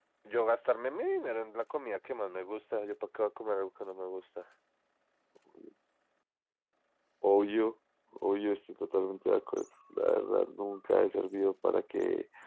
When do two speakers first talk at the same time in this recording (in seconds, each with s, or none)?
none